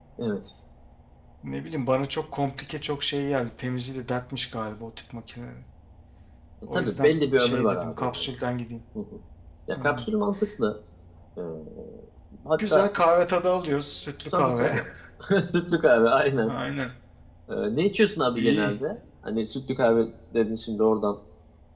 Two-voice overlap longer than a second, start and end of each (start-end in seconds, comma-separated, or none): 6.7-8.3